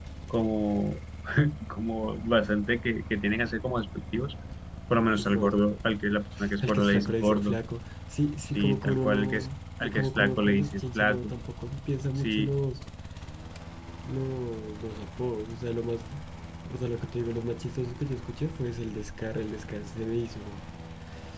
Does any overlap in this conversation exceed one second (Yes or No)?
Yes